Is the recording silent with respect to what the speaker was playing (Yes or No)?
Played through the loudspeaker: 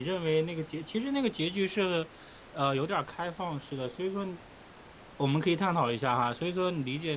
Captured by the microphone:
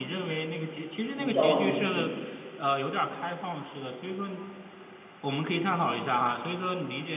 No